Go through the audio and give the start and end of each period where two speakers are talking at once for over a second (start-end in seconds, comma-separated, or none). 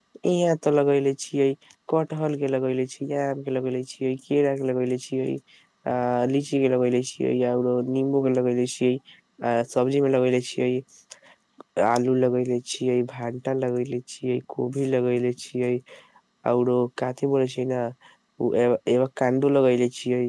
none